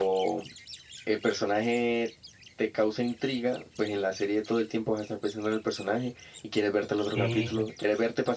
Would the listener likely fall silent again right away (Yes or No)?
Yes